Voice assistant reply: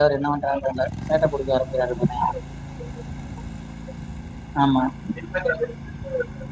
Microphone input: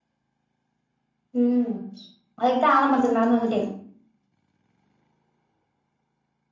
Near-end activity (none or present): present